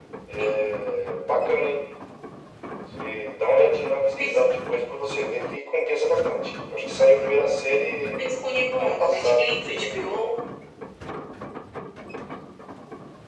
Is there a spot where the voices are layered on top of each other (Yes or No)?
Yes